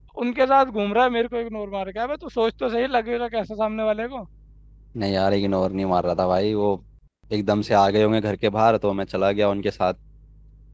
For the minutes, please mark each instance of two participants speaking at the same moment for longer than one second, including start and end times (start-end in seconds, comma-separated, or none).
none